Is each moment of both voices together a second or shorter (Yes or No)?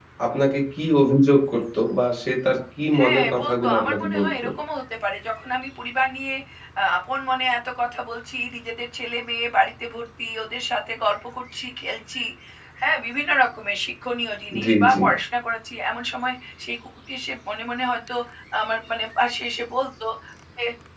No